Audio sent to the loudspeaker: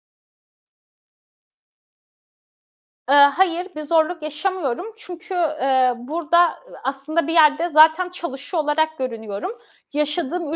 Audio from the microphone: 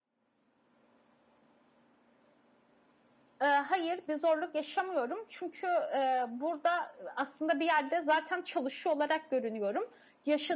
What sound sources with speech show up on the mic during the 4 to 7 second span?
echo only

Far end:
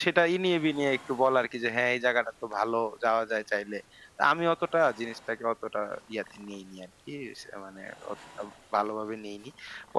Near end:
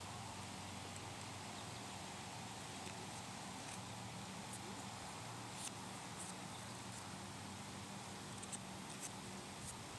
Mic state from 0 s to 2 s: neither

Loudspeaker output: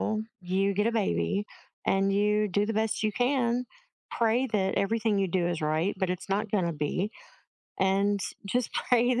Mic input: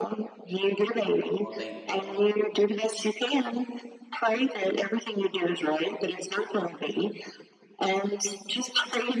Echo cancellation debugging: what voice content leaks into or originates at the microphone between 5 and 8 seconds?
echo only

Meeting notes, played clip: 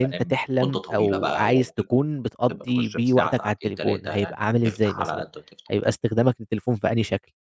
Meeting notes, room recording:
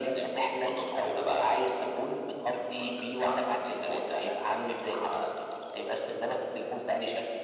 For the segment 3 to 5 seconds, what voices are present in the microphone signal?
echo only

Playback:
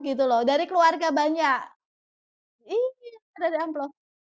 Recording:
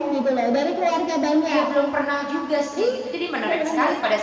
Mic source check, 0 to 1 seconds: echo only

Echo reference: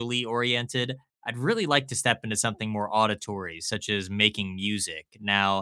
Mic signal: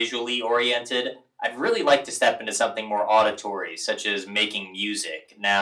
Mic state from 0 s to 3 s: echo only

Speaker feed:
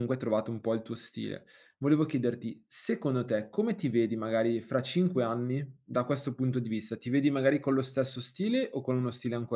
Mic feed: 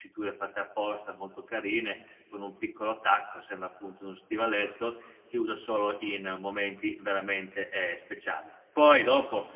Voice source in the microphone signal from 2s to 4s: user only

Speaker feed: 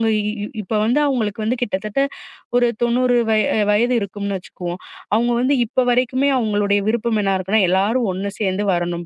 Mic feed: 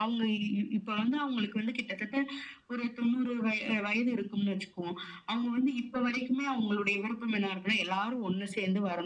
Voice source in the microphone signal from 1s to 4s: echo only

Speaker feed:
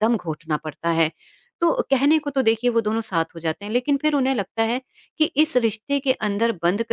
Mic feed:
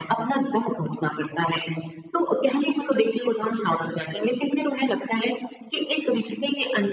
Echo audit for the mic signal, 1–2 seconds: echo only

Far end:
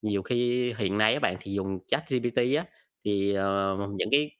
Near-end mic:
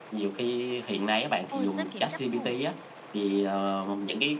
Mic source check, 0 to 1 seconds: echo only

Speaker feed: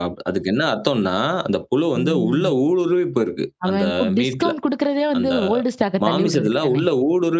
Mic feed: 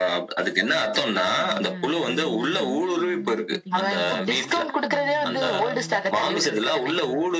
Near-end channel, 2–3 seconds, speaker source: both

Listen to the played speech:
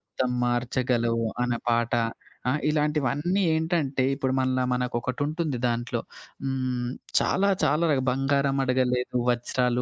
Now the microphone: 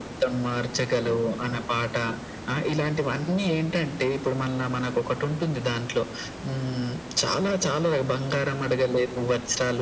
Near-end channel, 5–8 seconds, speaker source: echo only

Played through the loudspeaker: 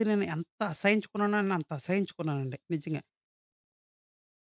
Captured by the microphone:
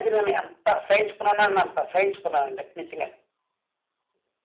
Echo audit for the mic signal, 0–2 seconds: echo only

